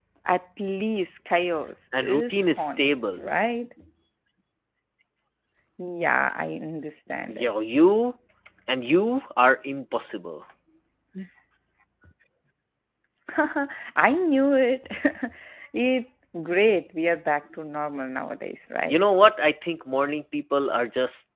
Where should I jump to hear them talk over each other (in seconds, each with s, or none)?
2.0 s